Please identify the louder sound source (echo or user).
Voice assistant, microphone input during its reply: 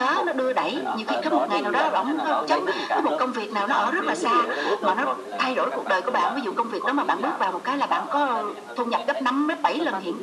echo